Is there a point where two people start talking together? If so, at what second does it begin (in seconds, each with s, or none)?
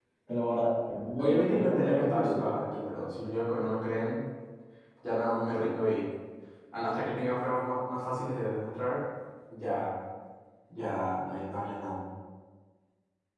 1.2 s